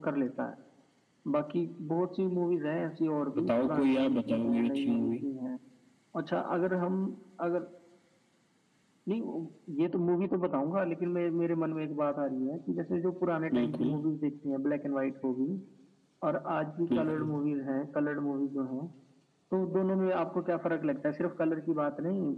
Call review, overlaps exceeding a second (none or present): present